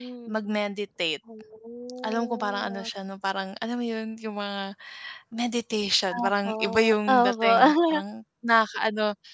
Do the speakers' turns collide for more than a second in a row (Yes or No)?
Yes